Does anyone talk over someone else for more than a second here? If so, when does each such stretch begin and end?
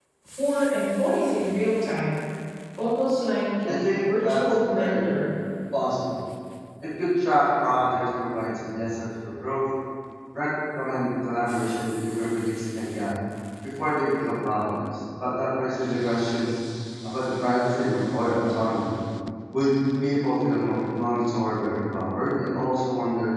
3.6-5.1

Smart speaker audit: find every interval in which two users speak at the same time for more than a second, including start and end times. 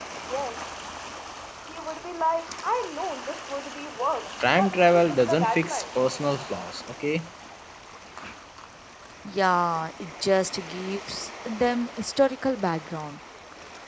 4.6-5.8

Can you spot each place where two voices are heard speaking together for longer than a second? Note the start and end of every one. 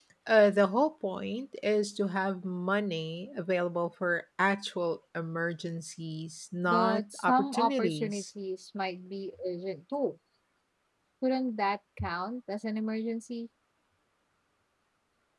6.7-8.2

